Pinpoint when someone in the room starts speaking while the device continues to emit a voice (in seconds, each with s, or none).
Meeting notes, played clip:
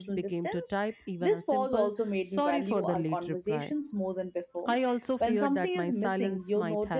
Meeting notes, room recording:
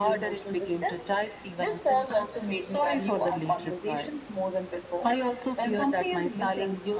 none